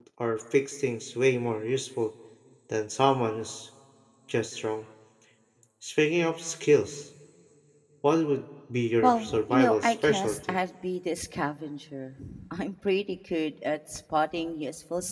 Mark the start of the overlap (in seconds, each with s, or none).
9.0 s